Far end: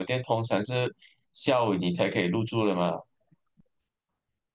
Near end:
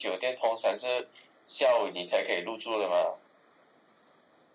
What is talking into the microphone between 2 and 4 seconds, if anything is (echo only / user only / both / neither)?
echo only